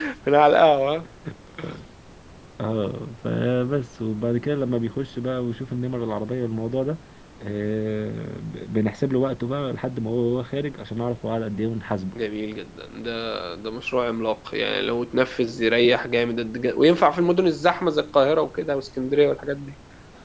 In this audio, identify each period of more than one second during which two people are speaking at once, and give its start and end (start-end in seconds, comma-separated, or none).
none